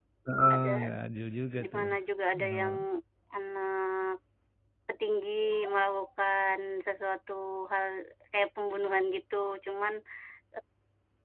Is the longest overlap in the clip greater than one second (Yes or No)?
No